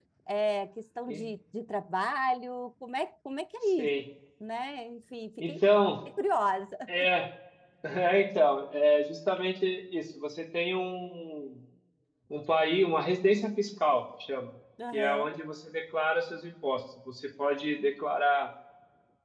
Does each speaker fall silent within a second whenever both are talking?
Yes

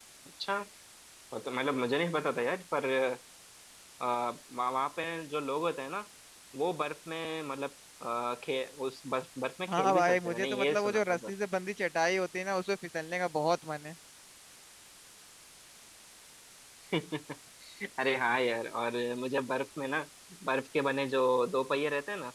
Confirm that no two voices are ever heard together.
No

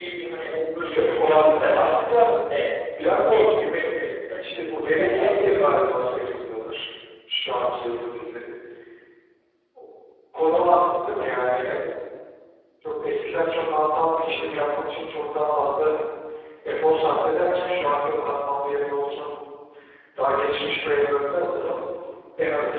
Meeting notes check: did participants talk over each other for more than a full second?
Yes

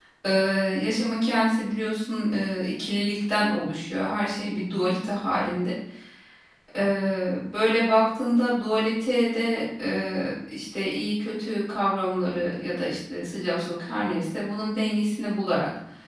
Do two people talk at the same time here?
No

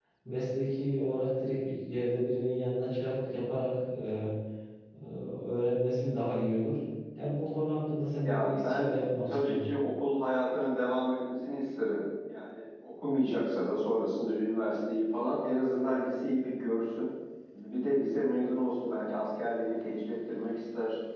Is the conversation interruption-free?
No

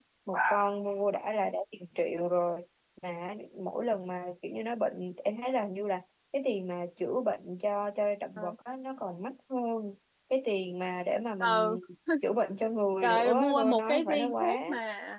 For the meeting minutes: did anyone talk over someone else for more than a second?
Yes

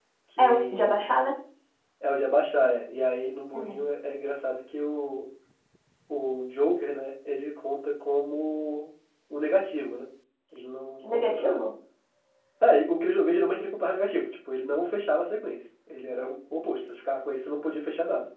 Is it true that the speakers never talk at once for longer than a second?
Yes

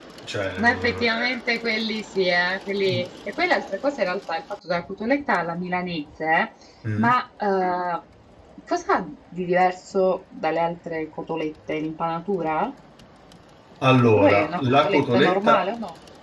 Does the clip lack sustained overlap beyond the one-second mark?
No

